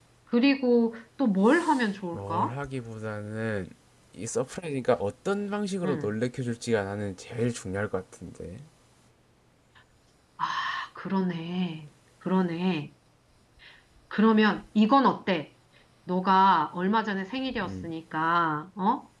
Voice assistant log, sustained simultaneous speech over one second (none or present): none